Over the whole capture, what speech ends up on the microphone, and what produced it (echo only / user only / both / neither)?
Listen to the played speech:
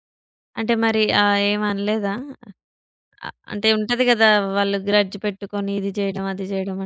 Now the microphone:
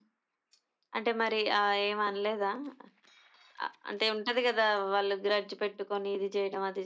echo only